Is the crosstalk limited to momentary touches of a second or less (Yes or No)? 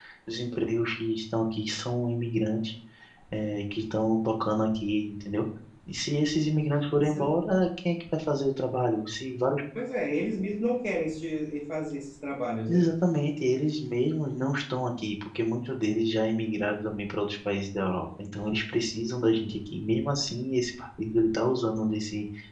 Yes